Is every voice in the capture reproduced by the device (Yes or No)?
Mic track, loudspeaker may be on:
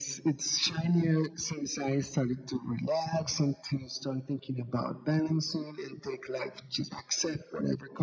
Yes